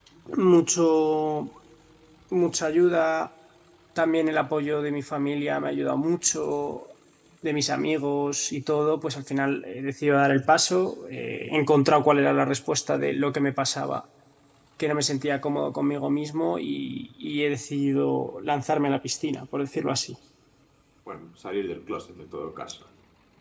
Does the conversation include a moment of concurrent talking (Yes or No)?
No